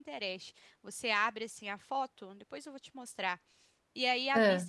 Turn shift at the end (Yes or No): No